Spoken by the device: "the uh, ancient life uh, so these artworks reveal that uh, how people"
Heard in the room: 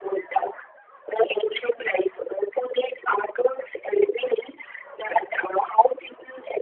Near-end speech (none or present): none